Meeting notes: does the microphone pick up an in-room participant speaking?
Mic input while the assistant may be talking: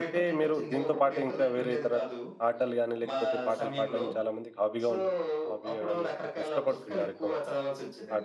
Yes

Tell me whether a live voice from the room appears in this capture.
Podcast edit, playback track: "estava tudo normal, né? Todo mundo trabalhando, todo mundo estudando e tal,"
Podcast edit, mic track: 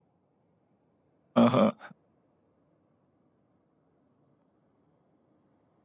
Yes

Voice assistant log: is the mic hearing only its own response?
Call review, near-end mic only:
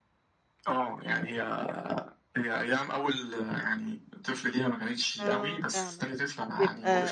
No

